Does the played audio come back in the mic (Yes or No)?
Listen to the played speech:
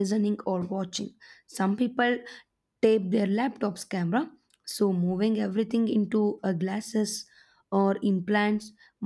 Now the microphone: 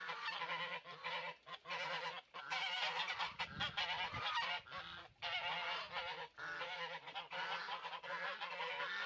No